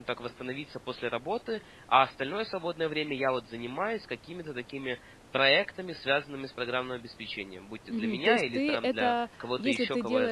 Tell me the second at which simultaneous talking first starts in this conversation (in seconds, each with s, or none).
7.9 s